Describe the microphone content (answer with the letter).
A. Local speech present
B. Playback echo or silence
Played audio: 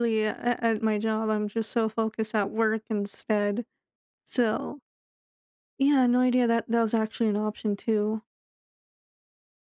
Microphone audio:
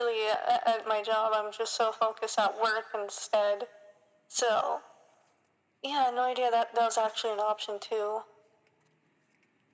B